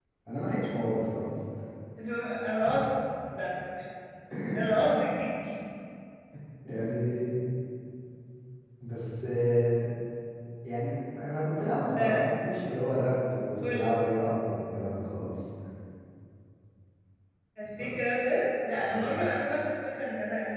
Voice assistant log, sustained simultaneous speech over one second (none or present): none